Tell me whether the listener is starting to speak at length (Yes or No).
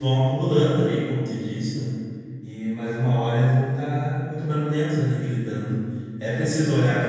No